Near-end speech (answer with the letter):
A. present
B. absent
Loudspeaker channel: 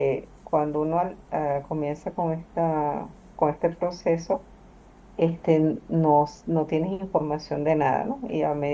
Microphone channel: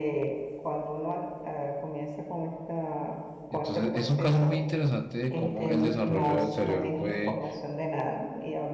A